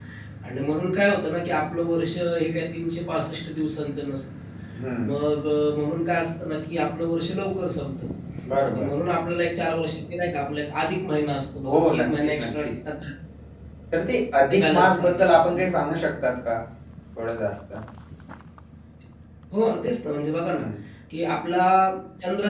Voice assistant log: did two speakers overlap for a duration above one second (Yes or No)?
Yes